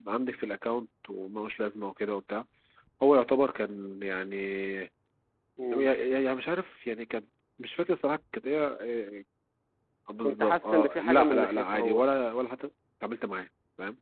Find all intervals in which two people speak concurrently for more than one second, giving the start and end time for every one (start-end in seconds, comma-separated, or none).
10.2-12.0